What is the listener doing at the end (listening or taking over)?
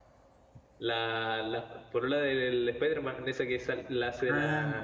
taking over